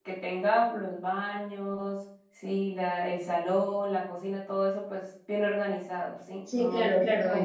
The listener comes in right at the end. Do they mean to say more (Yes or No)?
Yes